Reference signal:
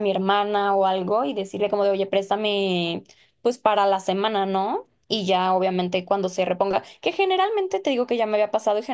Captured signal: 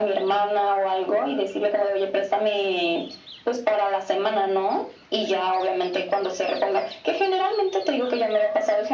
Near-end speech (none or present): none